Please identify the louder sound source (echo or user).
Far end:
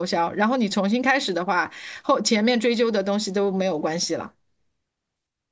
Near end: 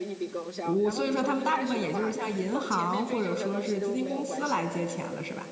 user